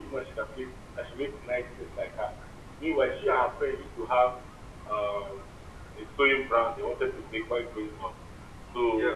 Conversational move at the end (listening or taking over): listening